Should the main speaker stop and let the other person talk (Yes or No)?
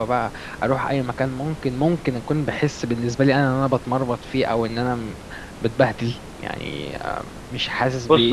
Yes